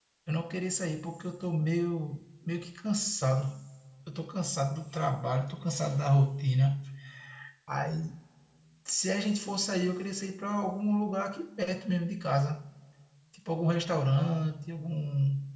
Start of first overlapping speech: none

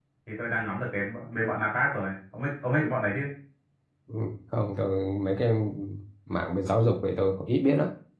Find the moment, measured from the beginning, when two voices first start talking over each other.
none

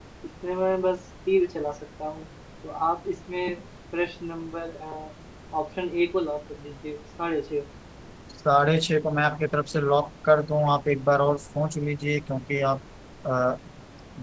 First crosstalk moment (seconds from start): none

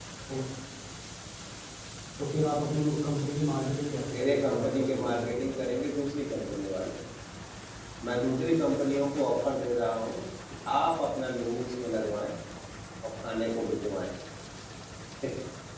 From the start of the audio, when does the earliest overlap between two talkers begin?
4.1 s

